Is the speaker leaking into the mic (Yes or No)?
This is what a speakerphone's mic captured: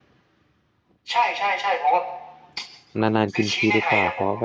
Yes